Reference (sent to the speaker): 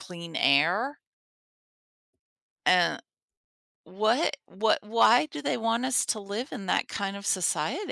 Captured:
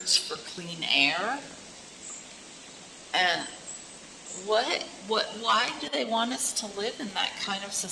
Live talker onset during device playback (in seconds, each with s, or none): none